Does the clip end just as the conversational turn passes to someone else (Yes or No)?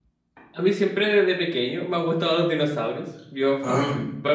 No